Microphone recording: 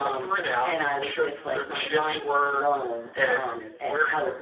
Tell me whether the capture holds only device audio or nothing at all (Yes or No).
No